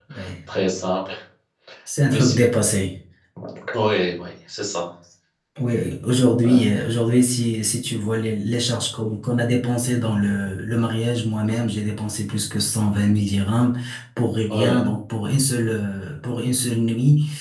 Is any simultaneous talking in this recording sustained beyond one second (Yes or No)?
No